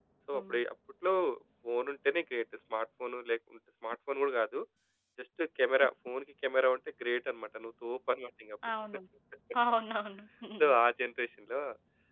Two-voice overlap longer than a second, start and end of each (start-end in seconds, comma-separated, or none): none